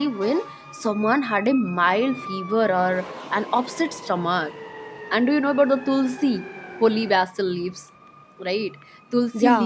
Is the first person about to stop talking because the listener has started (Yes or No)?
No